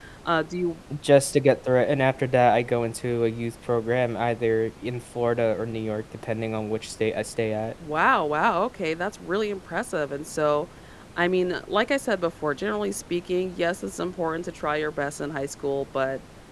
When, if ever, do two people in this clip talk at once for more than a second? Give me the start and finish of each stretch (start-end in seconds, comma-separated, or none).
none